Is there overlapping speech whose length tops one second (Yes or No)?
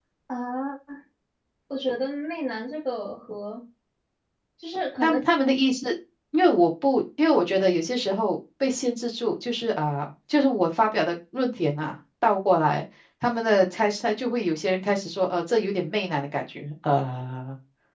No